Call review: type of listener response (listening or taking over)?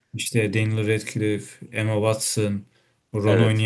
listening